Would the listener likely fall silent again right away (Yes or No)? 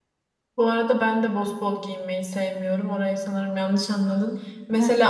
Yes